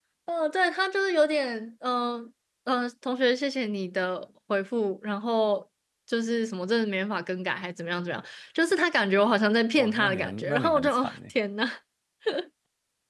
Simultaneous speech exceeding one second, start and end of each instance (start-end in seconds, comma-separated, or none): 9.8-11.2